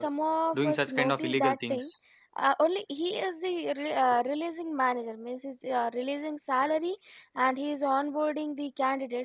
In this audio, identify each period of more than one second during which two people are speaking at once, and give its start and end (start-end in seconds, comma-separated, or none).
0.5-1.9